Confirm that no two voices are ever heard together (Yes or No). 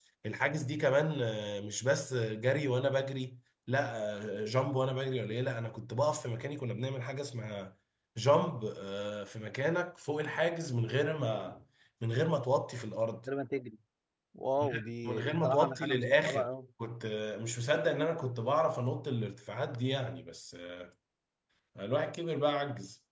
No